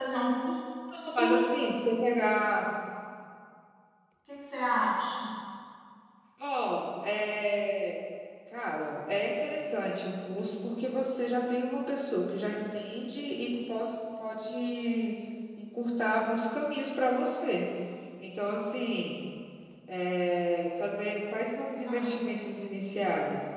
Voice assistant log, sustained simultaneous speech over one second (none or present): none